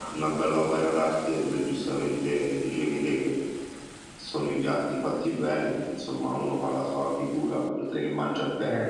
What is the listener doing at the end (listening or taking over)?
taking over